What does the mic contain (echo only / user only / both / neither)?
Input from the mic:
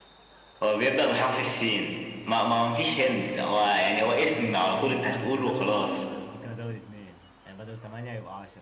both